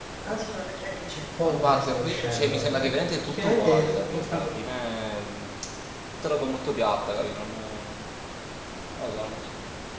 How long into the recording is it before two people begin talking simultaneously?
1 s

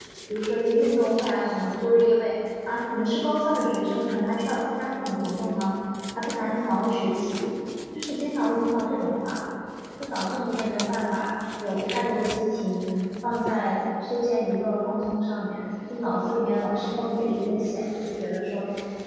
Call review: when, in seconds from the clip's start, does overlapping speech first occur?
none

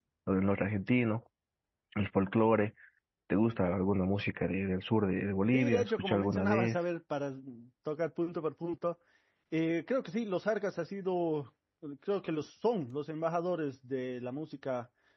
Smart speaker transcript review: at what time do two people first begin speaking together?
6 s

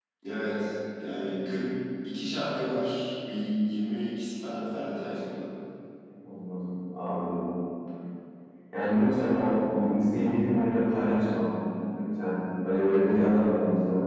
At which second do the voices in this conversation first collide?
none

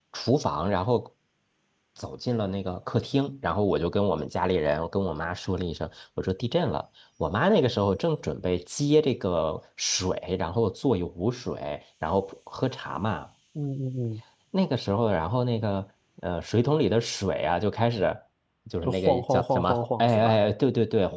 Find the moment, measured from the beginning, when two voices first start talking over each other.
19 s

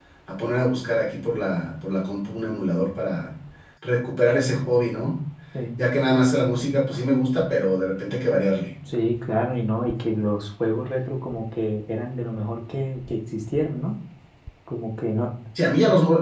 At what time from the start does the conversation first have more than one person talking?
none

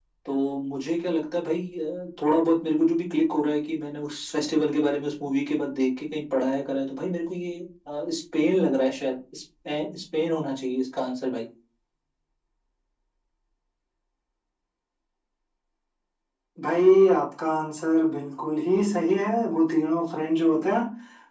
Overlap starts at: none

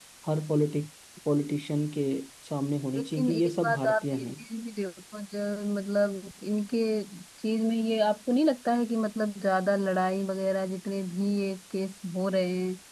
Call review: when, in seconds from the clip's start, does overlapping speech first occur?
3 s

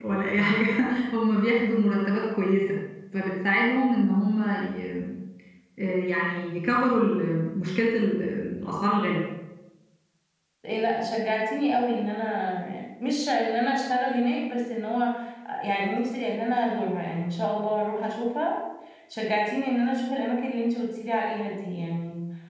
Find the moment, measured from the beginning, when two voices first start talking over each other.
none

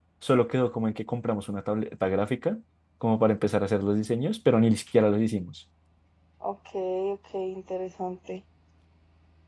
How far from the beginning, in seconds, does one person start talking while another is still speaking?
none

